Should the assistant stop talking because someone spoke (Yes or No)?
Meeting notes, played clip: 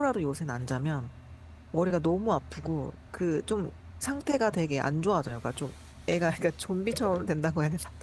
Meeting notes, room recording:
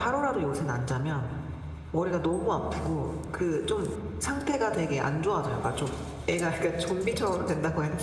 No